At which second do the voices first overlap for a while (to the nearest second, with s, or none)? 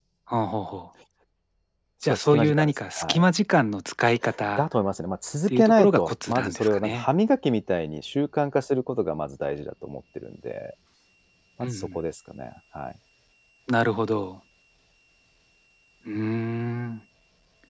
2 s